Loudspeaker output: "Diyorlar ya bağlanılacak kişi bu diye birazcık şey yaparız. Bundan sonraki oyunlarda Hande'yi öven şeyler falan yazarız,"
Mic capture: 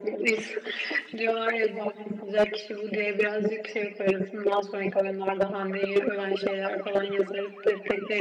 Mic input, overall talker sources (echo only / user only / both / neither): echo only